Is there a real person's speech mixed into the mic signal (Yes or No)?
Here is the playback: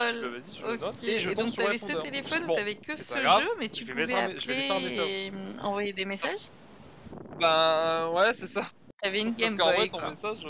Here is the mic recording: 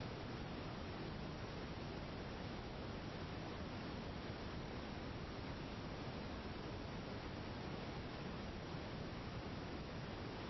No